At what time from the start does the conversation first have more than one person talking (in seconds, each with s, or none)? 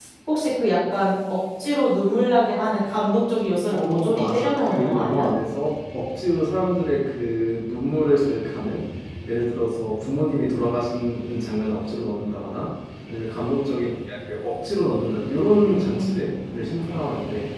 3.7 s